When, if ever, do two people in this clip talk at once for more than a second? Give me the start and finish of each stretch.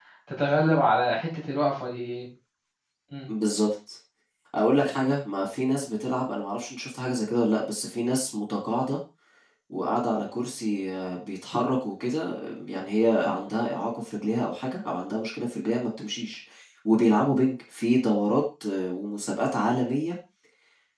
none

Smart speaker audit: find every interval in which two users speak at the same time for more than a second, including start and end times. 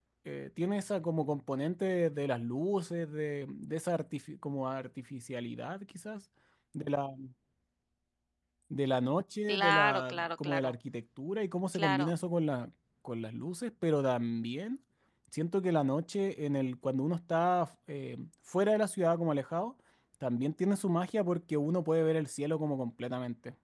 9.5-10.7

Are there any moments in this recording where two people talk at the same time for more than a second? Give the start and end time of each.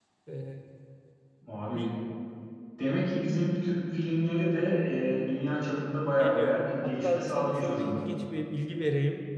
6.2-8.1

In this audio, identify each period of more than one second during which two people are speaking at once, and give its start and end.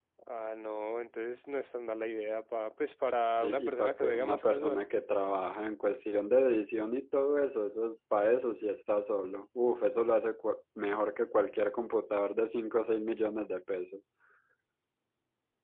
3.4-4.9

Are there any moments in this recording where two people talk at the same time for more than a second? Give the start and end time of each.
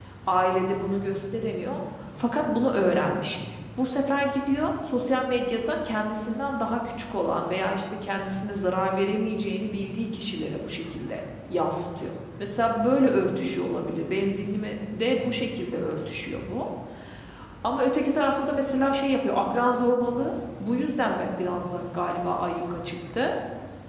none

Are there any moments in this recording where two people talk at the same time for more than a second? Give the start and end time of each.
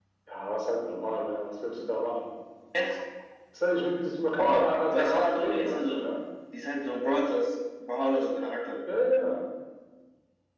4.4-6.1

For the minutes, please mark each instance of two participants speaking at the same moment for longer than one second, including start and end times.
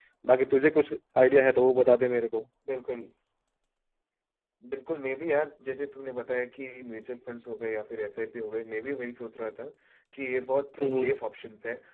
none

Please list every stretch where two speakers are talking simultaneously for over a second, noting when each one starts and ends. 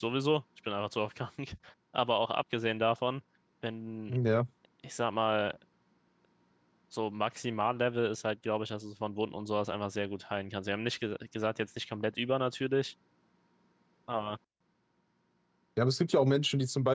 none

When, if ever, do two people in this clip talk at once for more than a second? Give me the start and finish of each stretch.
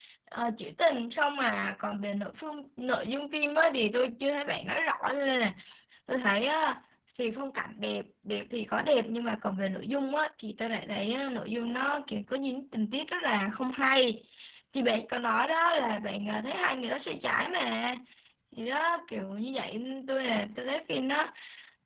none

